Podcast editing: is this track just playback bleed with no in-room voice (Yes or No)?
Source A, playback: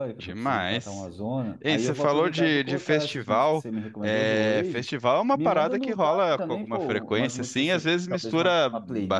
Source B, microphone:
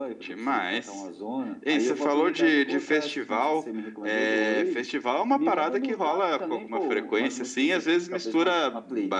Yes